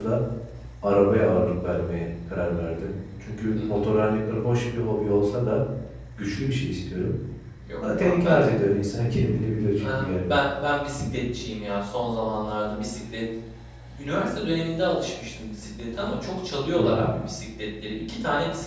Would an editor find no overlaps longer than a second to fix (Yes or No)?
Yes